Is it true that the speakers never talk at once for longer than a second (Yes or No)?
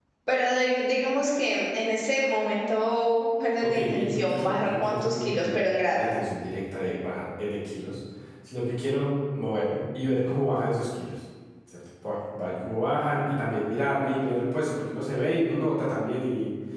No